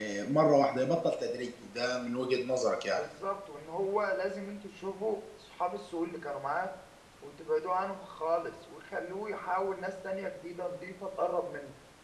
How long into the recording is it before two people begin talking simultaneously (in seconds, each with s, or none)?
none